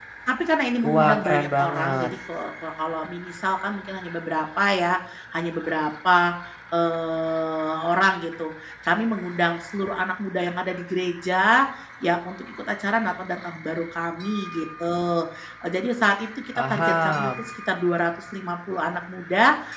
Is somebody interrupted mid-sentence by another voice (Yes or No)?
Yes